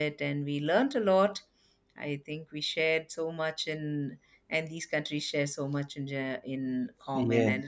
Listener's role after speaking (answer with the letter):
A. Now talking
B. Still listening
A